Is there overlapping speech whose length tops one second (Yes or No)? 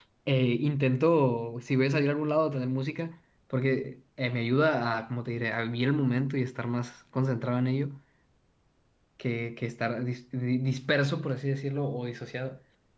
No